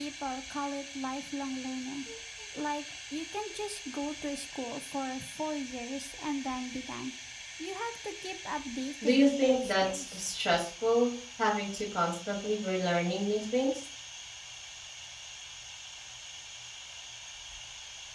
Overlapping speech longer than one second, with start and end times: 9.0-10.3

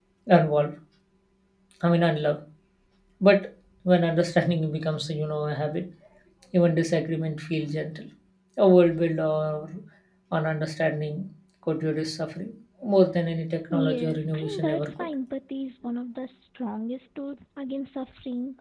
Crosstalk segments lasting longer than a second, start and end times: 13.7-14.9

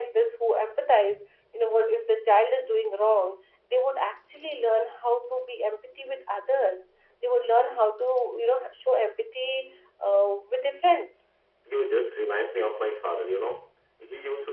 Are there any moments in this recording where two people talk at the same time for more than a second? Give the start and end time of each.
none

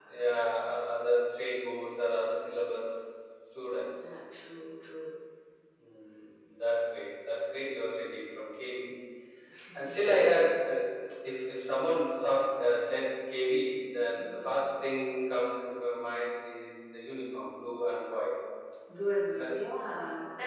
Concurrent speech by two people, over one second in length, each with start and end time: none

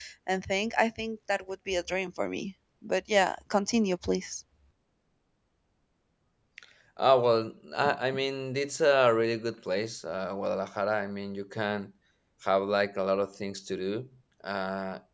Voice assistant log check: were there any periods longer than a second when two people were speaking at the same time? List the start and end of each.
none

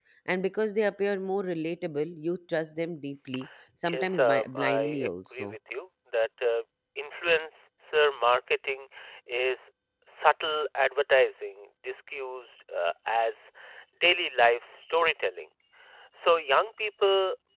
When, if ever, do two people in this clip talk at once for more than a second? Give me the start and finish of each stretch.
3.9-5.5

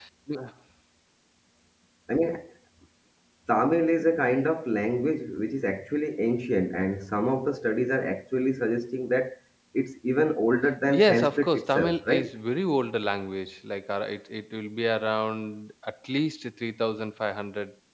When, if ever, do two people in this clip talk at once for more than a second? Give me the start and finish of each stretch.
11.0-12.3

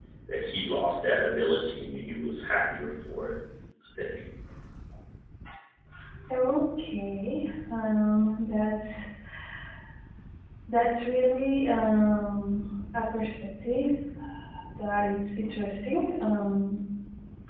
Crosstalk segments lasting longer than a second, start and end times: none

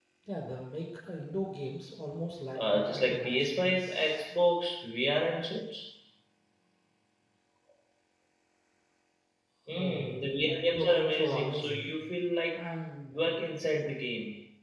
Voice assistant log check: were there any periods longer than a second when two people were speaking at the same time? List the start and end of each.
2.6-4.2, 9.7-11.9

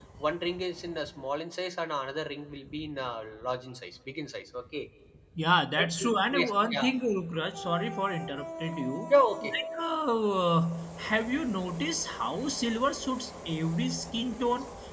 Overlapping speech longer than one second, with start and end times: none

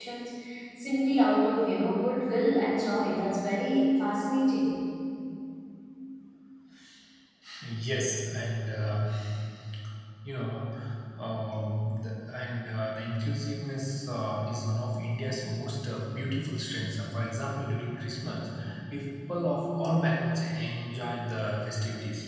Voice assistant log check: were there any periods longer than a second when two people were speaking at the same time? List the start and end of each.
none

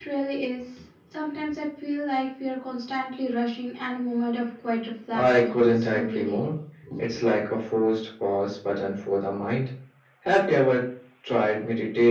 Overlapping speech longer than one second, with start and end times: 5.1-6.4

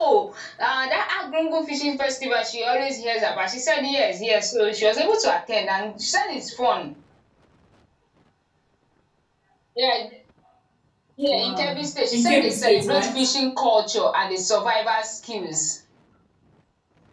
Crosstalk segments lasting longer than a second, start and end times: 11.3-13.2

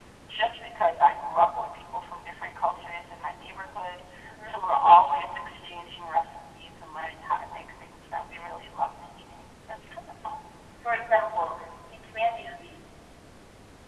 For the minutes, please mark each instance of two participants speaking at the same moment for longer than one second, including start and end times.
none

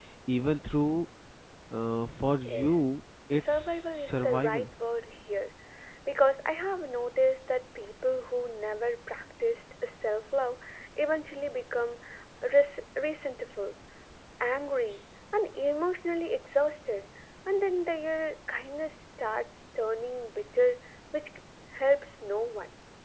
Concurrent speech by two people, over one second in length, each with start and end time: 3.4-4.7

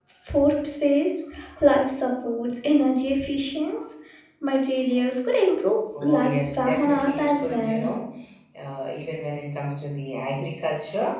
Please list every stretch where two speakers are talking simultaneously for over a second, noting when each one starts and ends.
6.0-7.9

